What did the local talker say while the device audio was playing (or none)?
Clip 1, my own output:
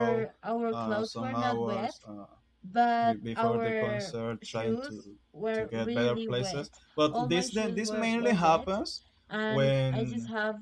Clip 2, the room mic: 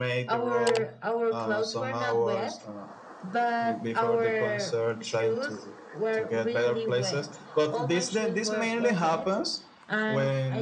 none